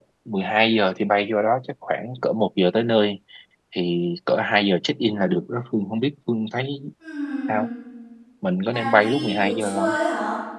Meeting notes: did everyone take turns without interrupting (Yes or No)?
No